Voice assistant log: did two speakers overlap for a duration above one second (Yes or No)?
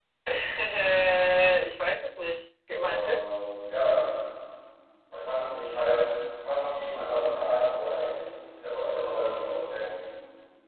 No